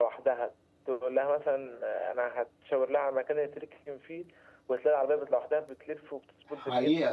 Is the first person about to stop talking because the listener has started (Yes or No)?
Yes